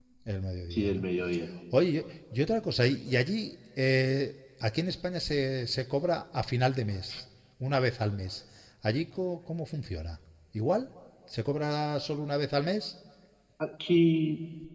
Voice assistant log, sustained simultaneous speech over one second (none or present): none